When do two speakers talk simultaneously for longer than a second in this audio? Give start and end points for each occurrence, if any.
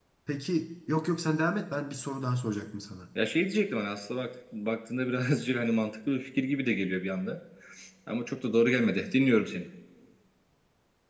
none

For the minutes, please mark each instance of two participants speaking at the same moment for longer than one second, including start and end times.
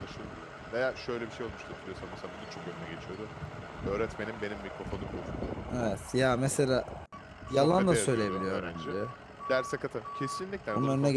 7.5-9.0

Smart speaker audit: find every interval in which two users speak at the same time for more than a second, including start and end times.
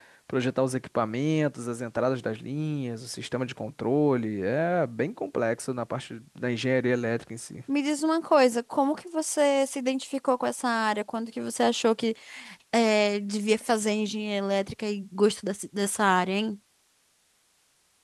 none

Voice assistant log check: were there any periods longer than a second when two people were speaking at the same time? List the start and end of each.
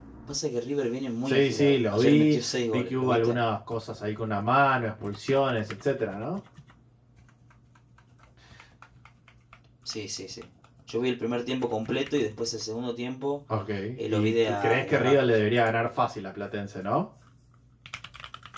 1.2-3.4, 14.1-15.4

